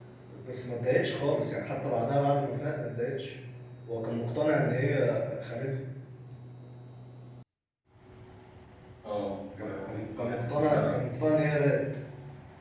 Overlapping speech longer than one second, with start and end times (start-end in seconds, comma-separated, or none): 9.6-10.9